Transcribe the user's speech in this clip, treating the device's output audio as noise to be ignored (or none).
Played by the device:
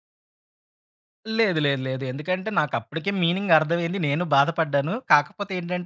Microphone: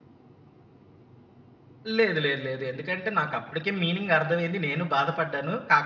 none